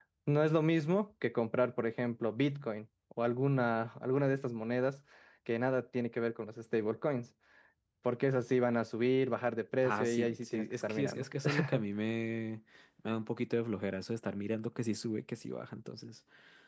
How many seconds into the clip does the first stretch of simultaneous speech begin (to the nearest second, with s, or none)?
10 s